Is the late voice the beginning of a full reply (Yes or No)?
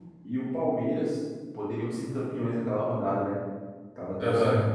Yes